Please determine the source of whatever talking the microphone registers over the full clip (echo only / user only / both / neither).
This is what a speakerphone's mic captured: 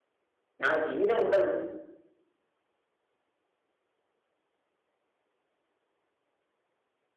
user only